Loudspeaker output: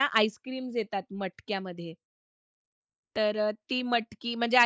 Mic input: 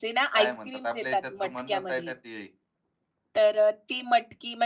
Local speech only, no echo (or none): काय म्हणतात आपल्या याच्यात तर म्हणणंच आहे ना ते